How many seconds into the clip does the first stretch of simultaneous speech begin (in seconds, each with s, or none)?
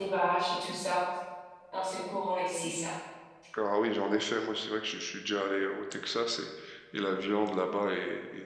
none